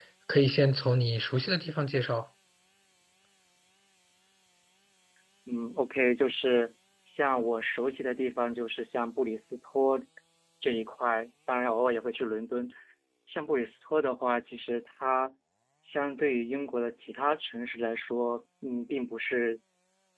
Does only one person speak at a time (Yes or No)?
Yes